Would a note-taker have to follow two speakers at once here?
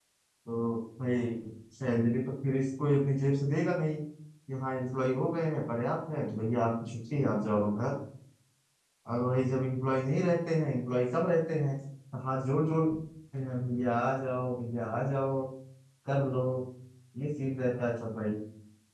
No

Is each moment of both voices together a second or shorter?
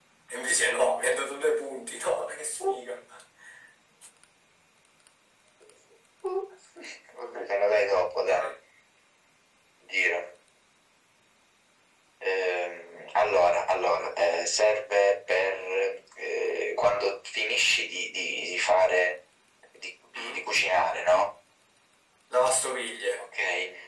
Yes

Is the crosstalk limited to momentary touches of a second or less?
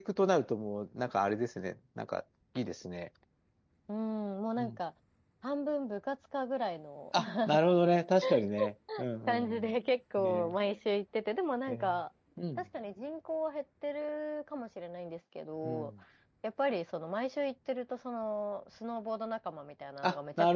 Yes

